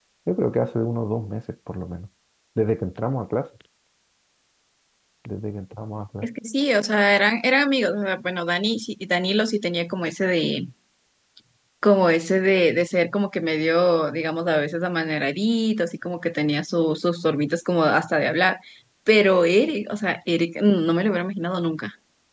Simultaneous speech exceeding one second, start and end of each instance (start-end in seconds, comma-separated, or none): none